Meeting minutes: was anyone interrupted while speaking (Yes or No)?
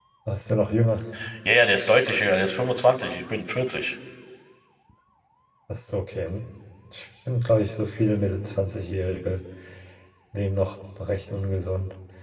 No